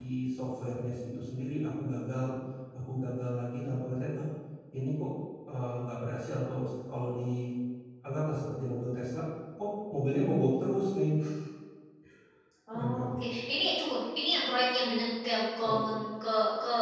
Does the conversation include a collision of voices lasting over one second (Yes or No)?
No